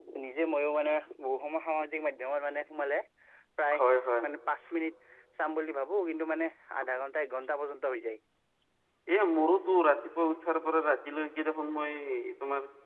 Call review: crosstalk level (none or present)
none